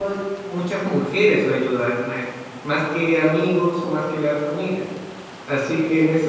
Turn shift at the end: No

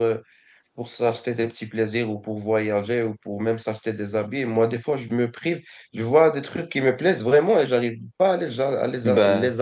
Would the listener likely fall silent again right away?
Yes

